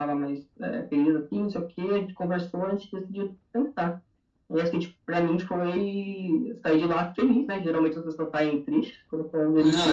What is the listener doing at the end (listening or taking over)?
taking over